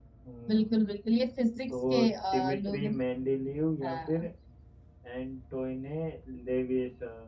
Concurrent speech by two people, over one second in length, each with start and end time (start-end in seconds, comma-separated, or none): 1.7-2.9